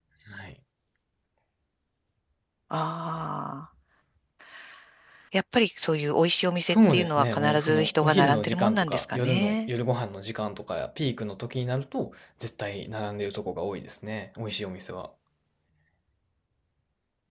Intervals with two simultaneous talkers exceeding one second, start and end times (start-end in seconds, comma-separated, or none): 6.7-9.7